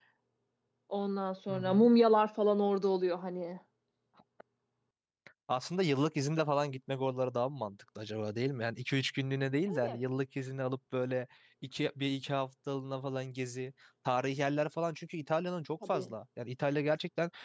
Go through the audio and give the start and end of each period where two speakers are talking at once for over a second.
none

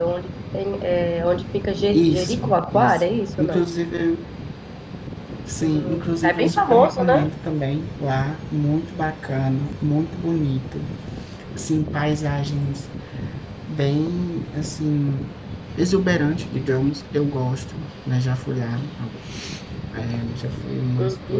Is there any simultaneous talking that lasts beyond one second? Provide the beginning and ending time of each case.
1.9-3.6, 5.6-7.2

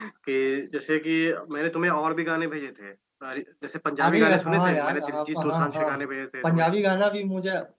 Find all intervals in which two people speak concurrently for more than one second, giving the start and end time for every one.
4.0-5.9

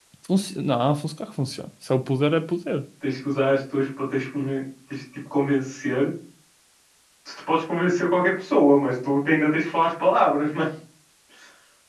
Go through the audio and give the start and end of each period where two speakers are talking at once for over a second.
none

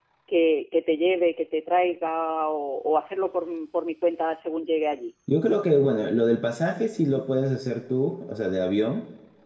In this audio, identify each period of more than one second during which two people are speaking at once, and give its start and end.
none

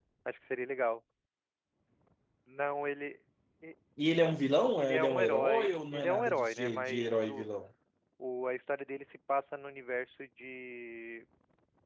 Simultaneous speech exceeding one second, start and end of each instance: 4.8-7.4

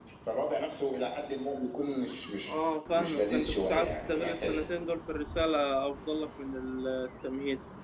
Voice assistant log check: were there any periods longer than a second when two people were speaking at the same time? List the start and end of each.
2.9-4.6

